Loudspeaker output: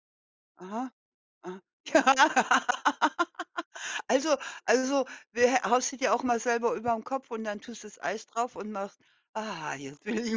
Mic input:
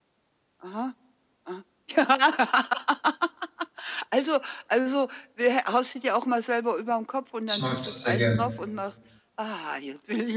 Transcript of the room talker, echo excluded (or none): Ich mag das sehr gerne.